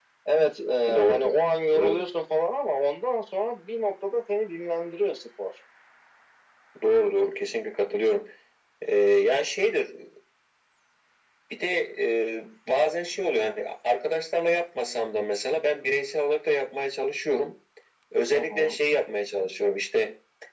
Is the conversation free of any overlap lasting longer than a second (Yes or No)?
Yes